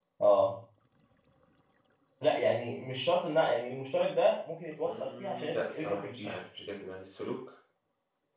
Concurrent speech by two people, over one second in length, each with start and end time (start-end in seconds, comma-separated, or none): 4.8-6.3